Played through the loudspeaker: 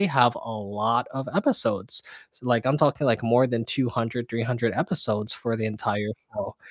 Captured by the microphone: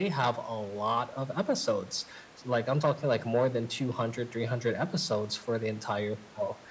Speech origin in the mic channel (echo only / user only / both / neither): echo only